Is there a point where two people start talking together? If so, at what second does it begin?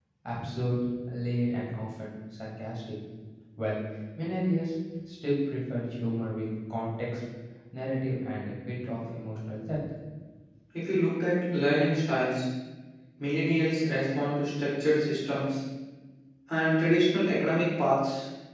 none

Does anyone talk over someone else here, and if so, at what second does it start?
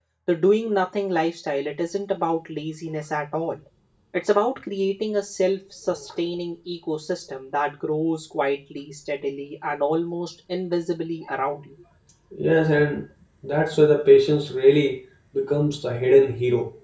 none

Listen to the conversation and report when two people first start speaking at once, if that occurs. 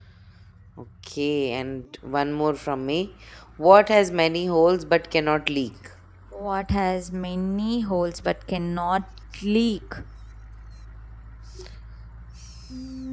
none

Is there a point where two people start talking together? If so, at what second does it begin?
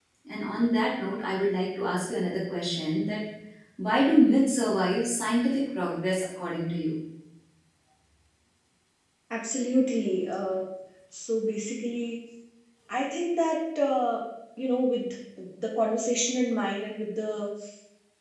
none

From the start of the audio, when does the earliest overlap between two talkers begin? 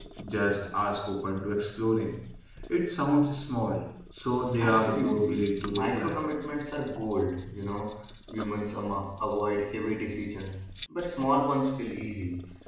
4.5 s

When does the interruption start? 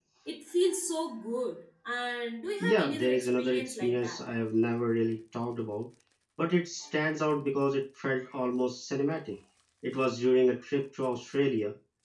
2.6 s

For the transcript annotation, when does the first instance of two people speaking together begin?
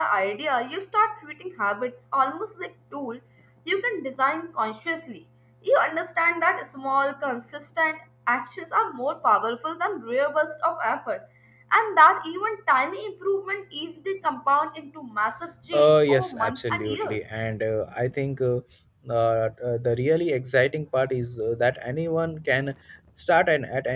15.7 s

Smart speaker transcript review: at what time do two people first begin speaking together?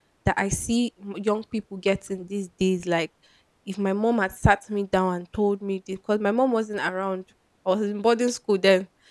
none

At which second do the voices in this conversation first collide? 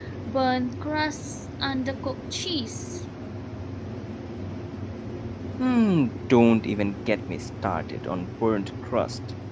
none

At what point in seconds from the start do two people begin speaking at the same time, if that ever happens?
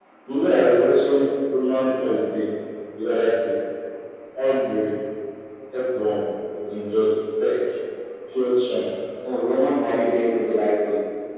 none

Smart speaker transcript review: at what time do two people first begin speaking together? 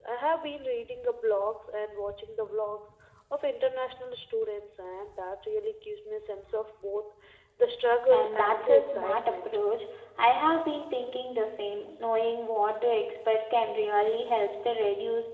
8.1 s

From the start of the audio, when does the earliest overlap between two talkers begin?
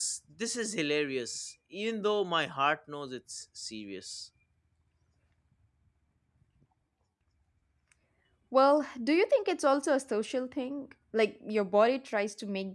none

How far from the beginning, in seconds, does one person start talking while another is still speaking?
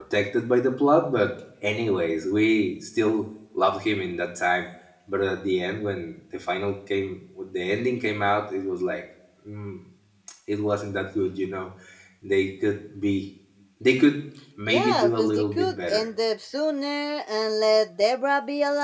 14.7 s

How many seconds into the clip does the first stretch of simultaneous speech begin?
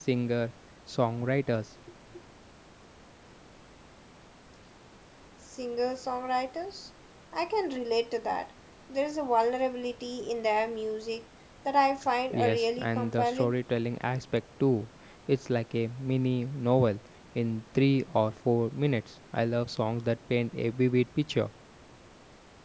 12.3 s

